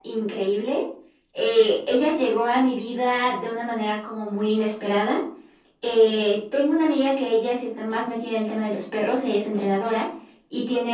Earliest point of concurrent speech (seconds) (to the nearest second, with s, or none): none